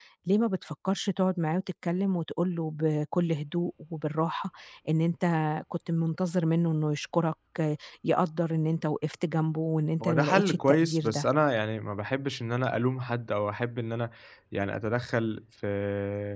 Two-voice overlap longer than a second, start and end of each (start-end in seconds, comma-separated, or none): 10.0-11.2